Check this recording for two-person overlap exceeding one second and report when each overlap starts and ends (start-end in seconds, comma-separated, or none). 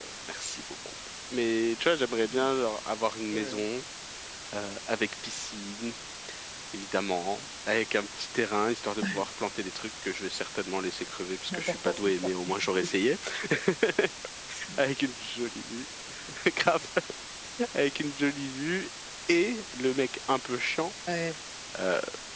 11.5-13.0